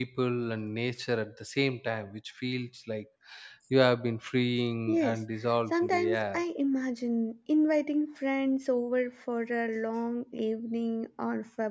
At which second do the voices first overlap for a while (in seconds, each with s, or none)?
4.9 s